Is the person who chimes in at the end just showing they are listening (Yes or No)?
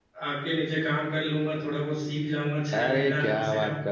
No